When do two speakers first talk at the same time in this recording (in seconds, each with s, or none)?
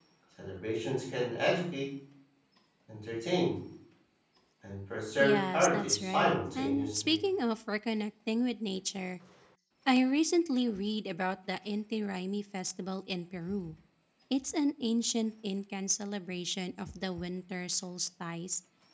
5.2 s